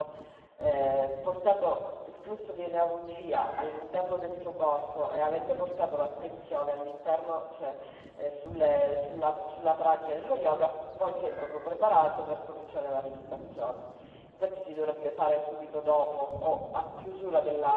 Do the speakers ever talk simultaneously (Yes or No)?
No